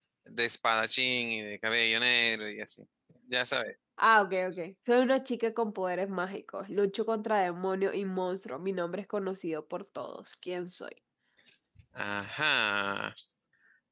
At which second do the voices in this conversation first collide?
none

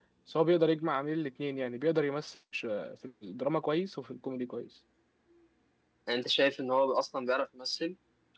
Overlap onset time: none

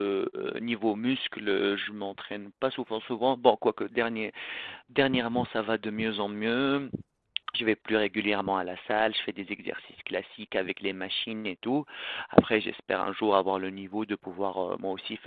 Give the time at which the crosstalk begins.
none

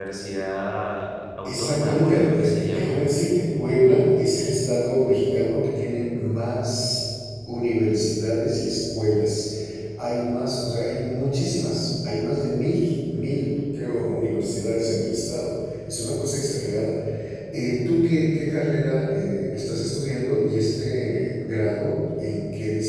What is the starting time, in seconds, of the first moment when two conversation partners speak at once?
1.4 s

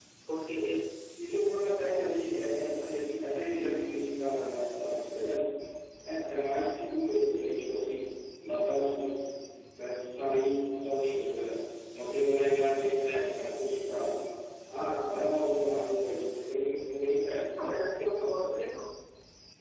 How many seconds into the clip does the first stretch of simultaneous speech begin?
none

